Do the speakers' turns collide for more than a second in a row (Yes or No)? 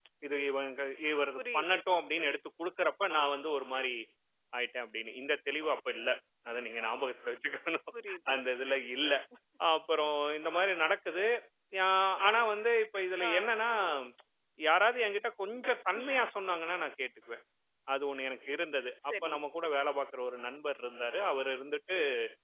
No